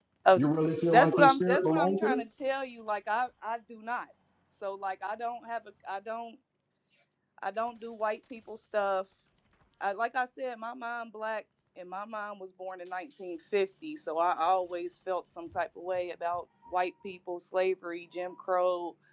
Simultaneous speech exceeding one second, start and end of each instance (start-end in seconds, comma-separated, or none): 0.9-2.1